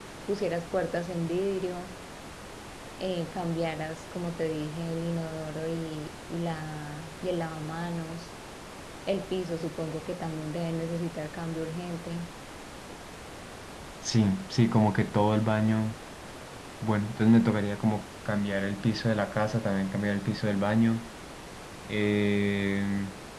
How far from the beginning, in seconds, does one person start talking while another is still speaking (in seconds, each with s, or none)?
none